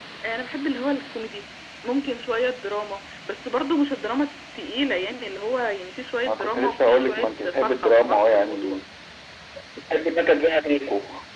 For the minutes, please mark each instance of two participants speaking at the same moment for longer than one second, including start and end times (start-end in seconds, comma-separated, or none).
6.3-8.8